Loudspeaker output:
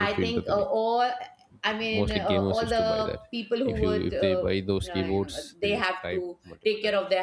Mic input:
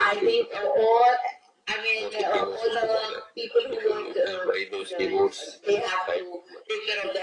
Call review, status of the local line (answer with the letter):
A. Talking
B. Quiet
B